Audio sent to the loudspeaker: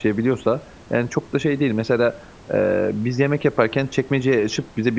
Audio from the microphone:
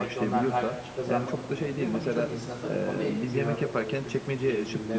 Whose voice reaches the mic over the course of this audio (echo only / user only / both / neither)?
both